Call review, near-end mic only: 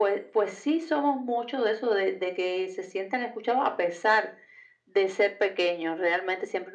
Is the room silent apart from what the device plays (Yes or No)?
Yes